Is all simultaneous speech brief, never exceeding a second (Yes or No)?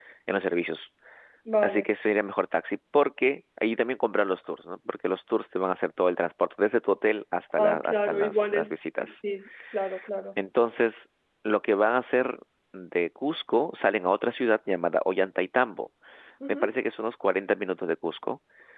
No